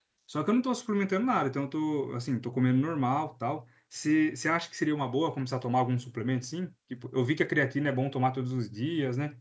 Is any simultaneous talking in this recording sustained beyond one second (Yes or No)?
No